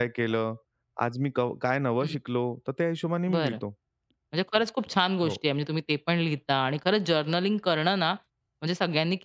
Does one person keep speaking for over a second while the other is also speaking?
No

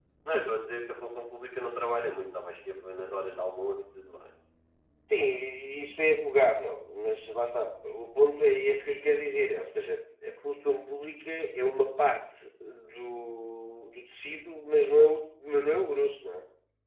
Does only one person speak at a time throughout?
Yes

